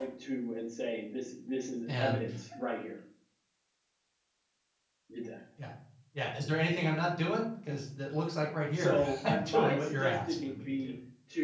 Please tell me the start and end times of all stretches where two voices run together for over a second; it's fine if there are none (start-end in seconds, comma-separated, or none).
8.7-10.9